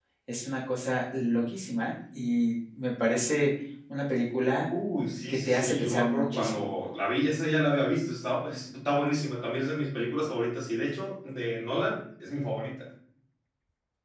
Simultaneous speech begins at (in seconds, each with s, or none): 5.3 s